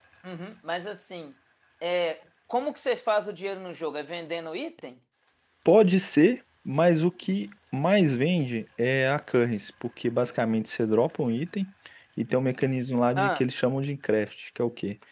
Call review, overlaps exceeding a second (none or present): none